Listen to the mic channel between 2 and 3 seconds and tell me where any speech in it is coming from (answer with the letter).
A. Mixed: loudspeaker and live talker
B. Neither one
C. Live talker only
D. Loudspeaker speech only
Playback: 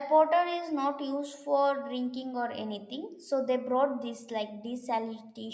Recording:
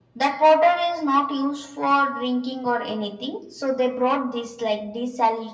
D